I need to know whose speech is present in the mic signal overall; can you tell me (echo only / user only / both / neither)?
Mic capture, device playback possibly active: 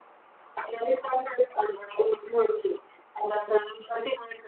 echo only